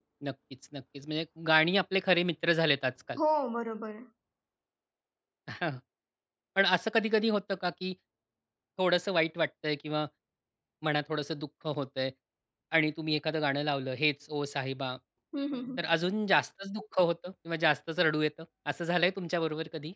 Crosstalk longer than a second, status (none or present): none